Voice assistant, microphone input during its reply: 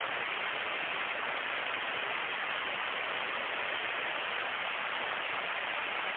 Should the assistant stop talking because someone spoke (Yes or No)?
No